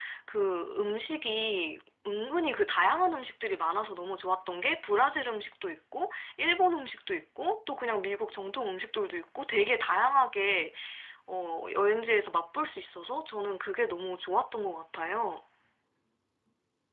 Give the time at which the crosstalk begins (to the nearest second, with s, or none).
none